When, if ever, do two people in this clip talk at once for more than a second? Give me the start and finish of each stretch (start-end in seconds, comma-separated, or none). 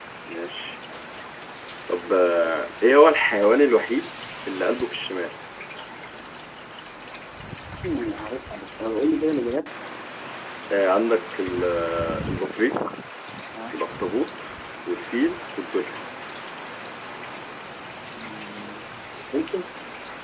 none